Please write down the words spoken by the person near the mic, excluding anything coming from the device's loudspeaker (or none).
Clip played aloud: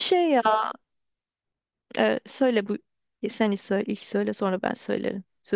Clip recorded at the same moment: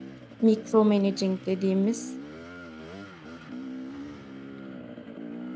micromanaging dediğimiz